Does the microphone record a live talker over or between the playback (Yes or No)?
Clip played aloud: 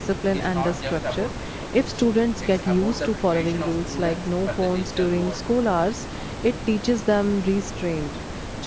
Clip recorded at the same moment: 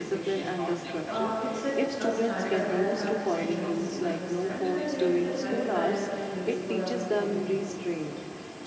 Yes